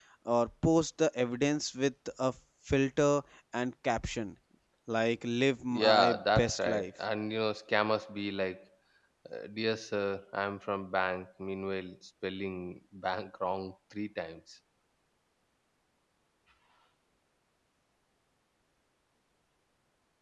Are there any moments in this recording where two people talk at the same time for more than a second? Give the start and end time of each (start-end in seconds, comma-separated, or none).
5.7-6.9